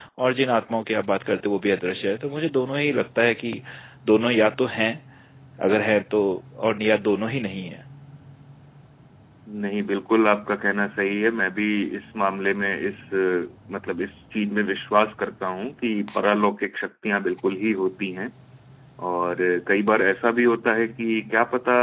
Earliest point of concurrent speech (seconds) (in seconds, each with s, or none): none